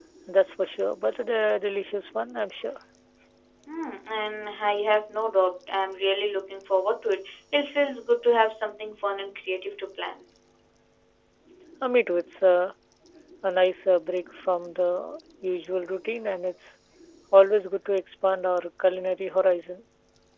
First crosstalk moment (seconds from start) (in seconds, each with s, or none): none